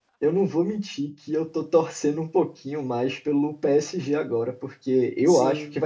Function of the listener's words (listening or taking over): listening